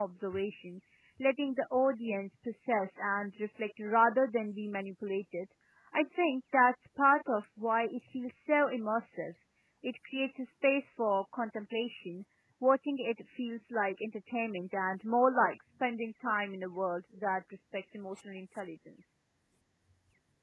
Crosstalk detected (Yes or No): No